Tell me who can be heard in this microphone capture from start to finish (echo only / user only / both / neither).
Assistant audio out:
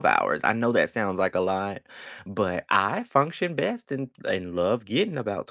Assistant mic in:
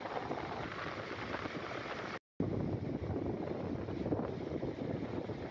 neither